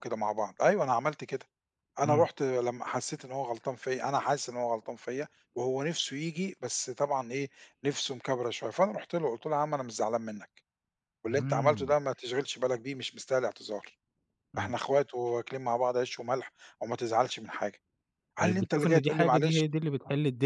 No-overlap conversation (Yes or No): No